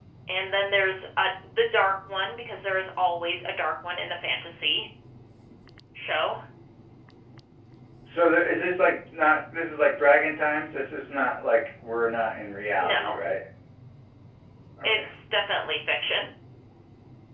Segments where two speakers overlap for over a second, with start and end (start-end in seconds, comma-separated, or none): none